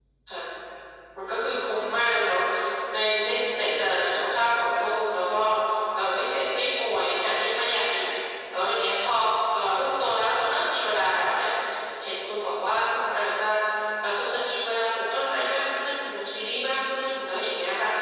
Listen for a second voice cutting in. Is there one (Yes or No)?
No